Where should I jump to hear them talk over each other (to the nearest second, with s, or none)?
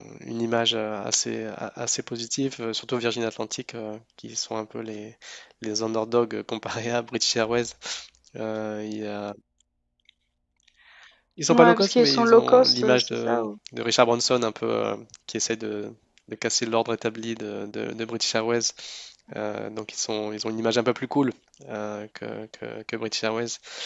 12 s